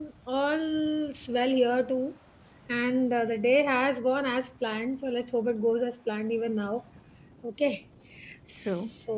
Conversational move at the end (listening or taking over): listening